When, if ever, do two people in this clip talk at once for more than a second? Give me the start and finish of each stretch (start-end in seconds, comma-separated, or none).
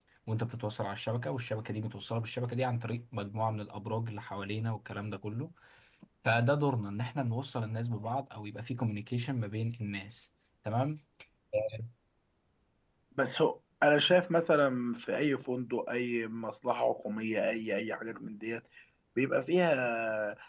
none